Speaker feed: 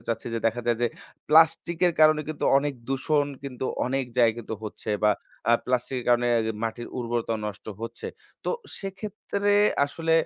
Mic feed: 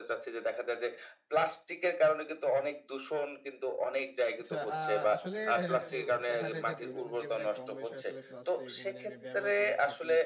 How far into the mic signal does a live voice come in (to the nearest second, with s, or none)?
4 s